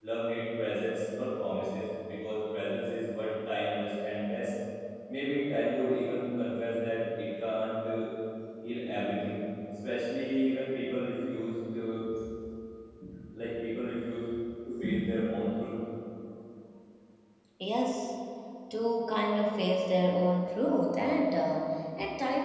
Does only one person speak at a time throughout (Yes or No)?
Yes